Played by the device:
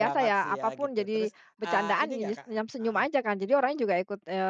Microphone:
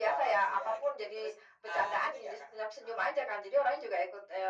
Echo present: Yes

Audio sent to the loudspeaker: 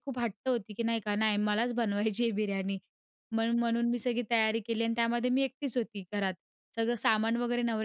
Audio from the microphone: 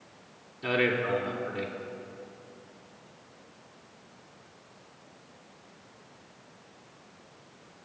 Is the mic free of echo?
Yes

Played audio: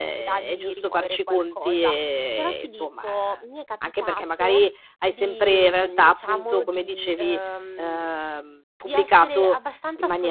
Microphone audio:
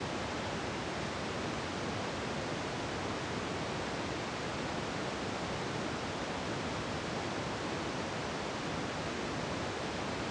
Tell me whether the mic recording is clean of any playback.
Yes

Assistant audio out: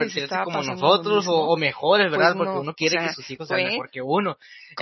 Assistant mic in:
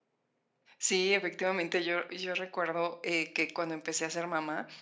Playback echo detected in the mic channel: No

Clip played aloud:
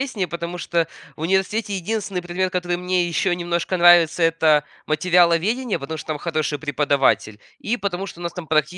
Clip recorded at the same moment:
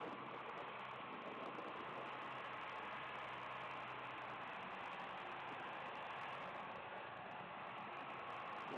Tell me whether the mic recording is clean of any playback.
Yes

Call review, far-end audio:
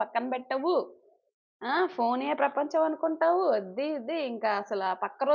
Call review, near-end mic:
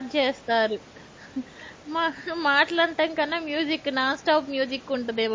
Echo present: No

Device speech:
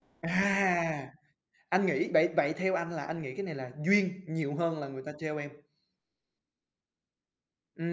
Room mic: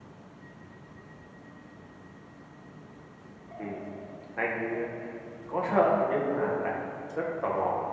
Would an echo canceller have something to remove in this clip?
No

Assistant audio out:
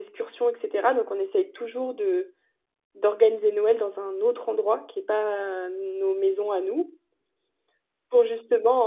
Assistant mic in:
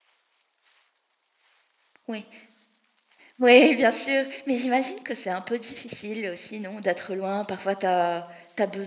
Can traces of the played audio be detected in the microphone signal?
No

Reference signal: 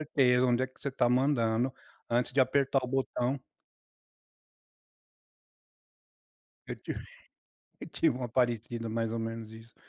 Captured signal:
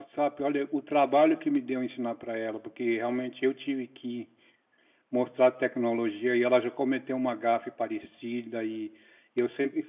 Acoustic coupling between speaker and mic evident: No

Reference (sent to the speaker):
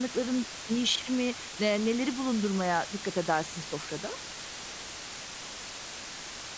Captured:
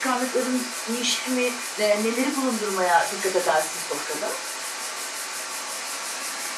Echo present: Yes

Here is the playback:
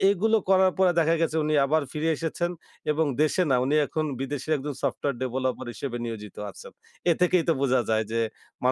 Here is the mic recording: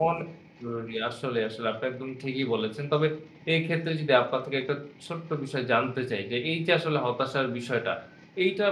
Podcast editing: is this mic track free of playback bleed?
Yes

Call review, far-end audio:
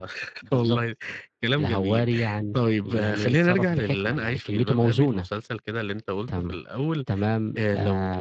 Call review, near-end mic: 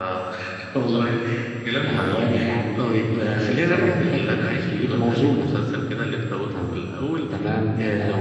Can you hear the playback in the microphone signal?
Yes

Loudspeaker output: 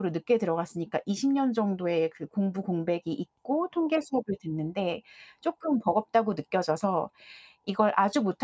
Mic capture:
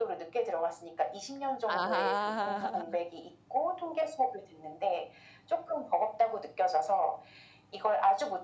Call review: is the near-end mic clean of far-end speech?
No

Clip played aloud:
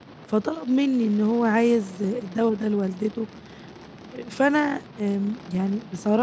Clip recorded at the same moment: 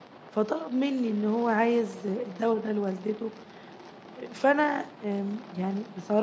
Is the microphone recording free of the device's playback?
No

